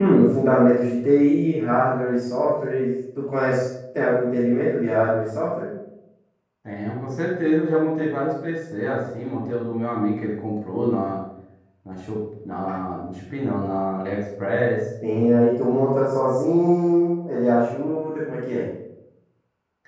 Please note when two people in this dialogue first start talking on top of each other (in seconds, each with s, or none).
none